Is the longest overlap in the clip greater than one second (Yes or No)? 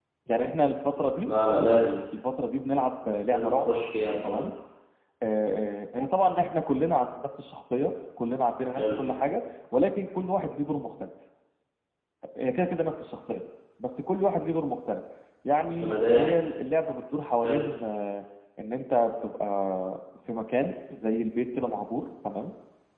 No